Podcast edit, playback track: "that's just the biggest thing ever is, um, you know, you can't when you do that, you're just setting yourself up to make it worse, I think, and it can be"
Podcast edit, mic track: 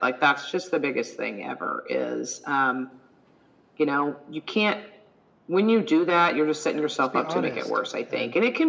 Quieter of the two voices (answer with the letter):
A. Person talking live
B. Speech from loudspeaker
A